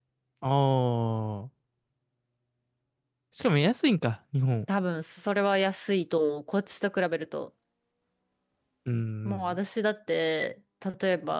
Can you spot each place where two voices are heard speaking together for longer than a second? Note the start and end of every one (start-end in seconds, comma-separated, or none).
none